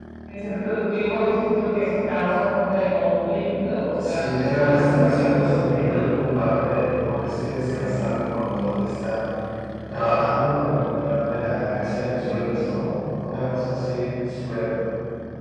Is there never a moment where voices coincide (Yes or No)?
No